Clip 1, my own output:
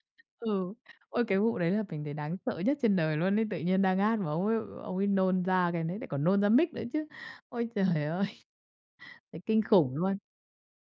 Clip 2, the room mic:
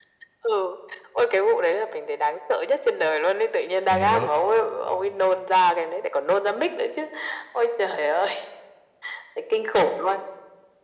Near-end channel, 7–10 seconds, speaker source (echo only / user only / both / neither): echo only